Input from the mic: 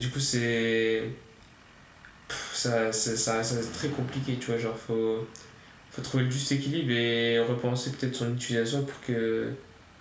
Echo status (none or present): none